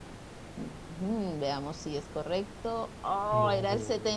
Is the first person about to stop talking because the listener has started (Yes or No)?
No